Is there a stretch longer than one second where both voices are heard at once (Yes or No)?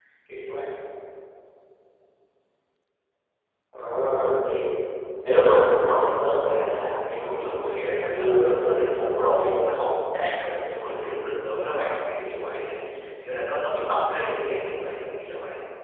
Yes